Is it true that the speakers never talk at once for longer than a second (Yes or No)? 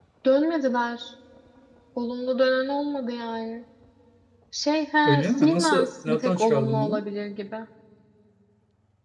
No